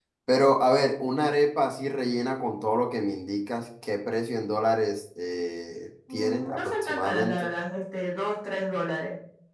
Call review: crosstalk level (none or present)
present